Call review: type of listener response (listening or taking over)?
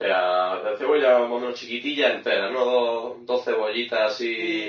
taking over